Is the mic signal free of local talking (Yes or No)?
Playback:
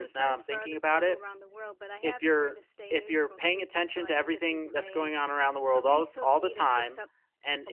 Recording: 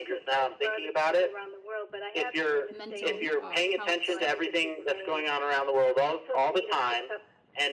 No